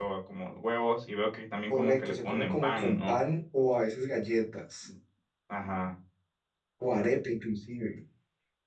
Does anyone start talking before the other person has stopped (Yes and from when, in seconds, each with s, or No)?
Yes, from 1.7 s